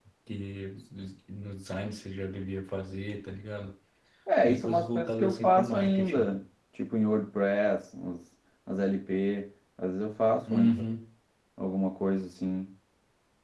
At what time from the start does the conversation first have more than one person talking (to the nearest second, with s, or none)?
4 s